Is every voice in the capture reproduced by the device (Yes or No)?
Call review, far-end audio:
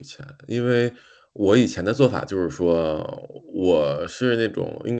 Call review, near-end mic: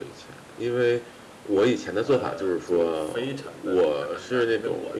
No